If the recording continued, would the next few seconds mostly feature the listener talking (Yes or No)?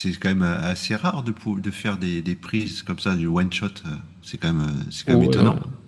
Yes